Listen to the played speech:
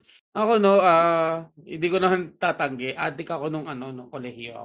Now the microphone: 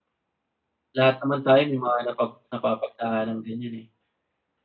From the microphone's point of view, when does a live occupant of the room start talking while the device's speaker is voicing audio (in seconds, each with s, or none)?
1.0 s